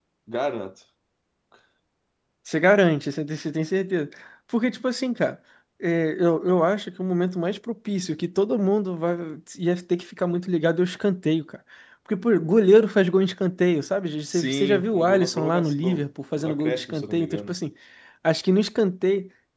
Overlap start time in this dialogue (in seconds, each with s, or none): 14.3 s